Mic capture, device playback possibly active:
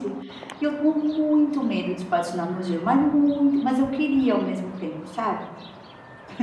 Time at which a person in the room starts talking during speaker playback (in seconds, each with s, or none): none